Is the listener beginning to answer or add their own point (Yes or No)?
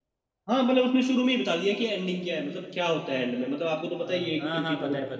Yes